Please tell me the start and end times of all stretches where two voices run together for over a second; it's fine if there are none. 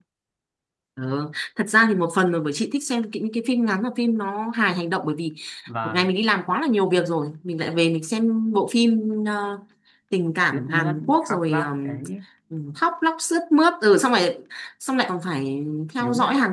10.5-12.0

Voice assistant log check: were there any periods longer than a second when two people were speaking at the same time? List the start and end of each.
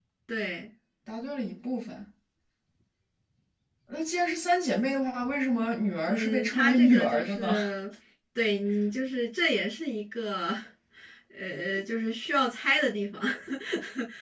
6.0-7.5

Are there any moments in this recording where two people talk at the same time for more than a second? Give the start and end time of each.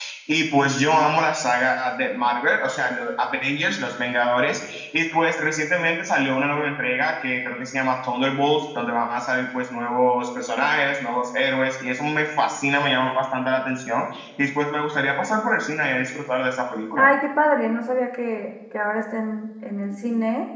none

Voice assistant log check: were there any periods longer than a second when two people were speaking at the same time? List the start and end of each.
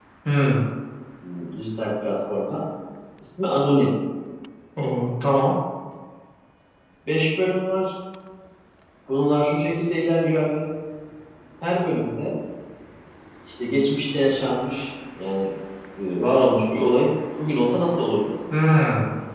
none

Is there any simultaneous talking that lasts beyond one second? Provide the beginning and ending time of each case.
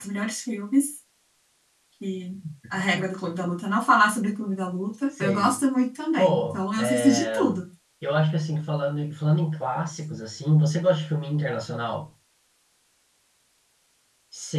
6.2-7.4

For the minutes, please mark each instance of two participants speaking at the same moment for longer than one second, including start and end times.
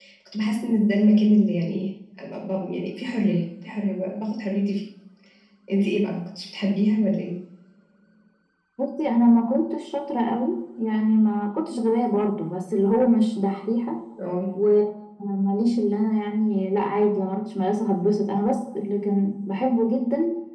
none

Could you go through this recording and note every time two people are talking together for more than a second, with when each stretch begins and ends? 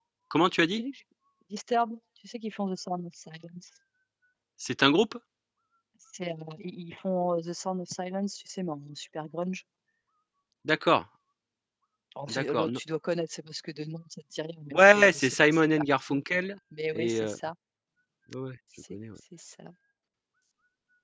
14.7-16.2

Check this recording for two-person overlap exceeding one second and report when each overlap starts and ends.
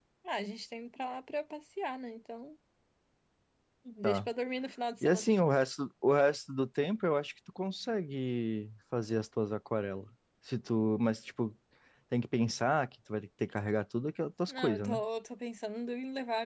none

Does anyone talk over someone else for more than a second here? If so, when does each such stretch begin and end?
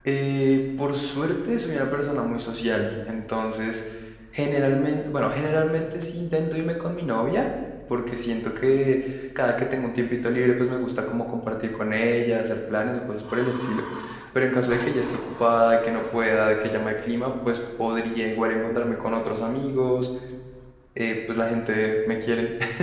none

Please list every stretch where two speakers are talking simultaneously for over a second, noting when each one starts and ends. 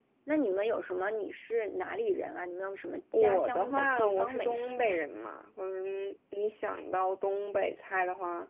3.2-5.0

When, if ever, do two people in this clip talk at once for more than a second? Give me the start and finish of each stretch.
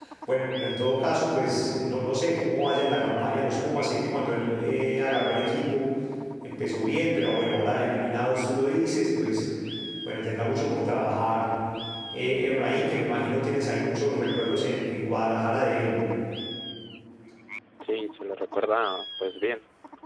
none

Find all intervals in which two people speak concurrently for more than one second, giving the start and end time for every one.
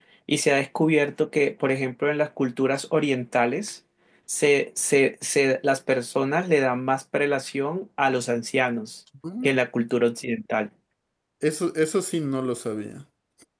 none

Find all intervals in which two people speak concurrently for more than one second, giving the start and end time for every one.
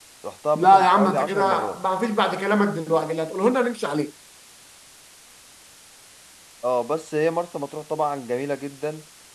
0.6-1.8

